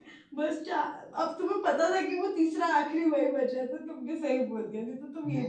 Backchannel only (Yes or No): No